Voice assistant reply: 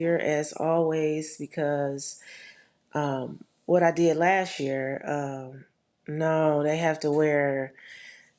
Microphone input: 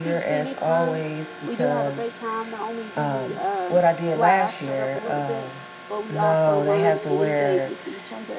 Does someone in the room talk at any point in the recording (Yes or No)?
Yes